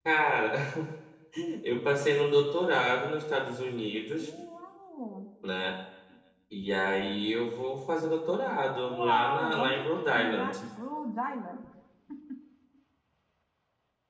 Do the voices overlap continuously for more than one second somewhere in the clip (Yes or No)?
Yes